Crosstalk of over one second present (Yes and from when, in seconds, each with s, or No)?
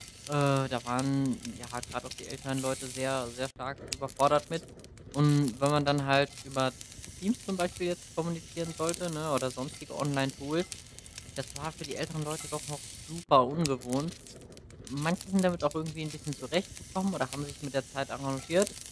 No